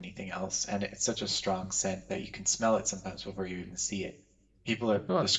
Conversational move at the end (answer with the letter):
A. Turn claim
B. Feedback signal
B